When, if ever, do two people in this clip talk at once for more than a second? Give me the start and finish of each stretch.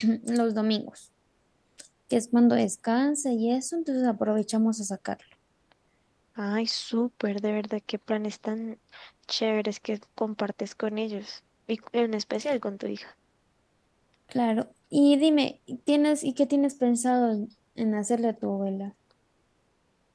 none

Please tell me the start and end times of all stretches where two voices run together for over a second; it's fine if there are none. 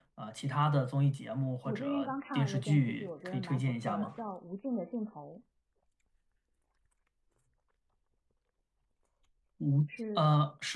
1.6-4.1

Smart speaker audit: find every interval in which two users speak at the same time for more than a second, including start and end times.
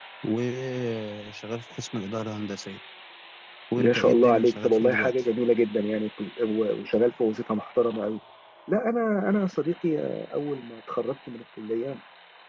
3.8-5.1

